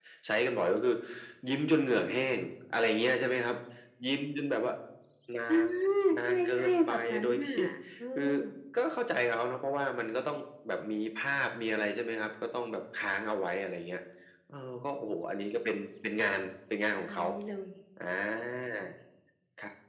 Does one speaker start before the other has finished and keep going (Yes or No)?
Yes